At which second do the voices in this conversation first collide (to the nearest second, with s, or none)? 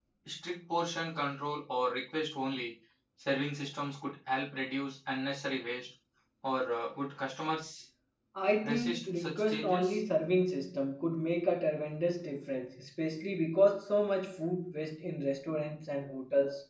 9 s